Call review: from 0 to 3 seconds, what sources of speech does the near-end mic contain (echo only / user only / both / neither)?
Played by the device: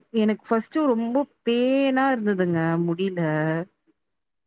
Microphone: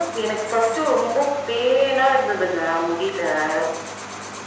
echo only